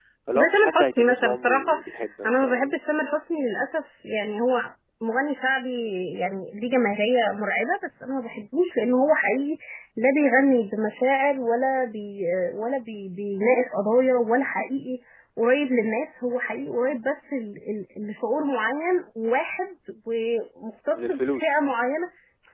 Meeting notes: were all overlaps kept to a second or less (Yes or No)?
No